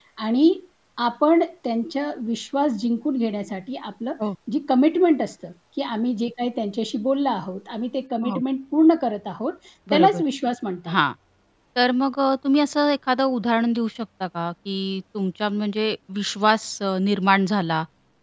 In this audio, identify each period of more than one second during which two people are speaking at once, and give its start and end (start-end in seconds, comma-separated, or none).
none